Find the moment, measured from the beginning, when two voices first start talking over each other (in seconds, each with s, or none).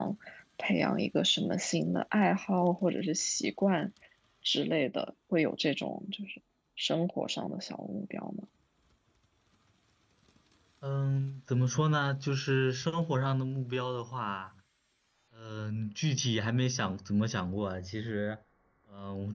none